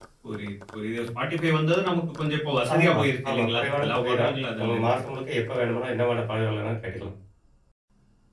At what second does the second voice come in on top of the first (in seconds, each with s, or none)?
2.7 s